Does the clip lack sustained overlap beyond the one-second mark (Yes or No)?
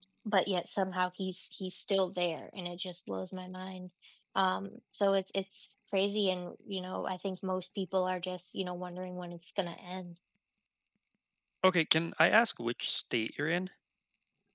Yes